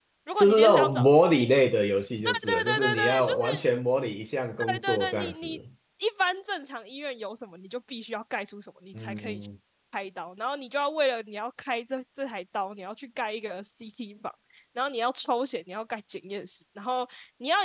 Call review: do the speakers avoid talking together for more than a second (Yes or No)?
No